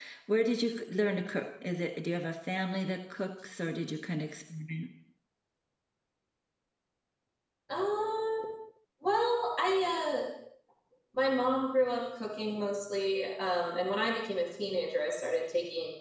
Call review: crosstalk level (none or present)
none